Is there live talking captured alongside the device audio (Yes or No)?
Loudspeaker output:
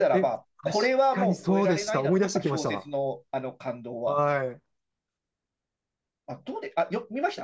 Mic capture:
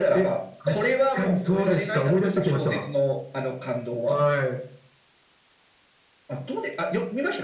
No